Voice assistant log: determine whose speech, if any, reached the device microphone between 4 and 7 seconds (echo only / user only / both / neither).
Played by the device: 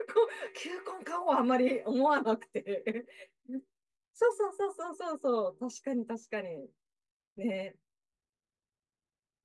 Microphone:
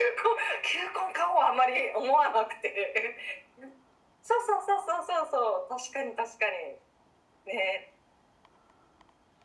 echo only